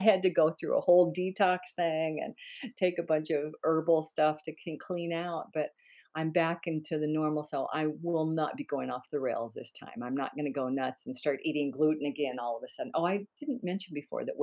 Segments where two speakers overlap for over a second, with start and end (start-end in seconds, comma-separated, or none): none